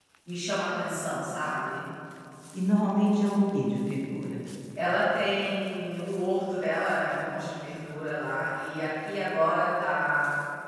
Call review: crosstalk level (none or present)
none